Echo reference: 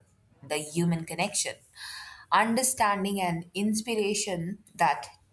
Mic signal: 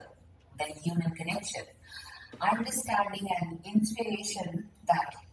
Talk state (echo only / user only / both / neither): echo only